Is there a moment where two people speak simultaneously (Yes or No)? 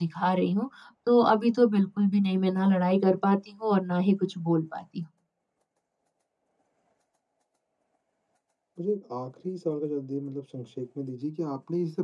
No